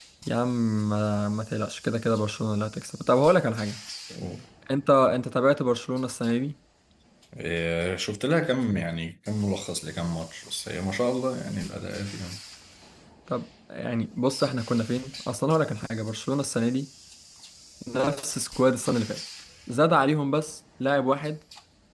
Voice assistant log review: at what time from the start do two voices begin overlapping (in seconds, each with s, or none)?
none